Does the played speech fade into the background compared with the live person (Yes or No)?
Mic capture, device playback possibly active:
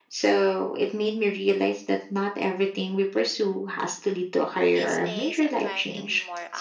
No